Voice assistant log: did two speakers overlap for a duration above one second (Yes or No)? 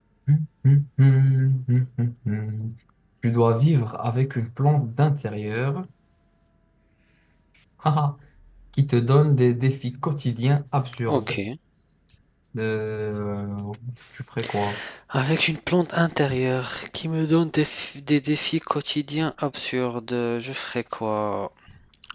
No